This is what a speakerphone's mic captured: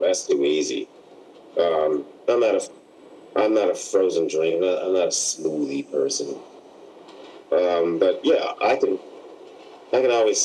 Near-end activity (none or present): none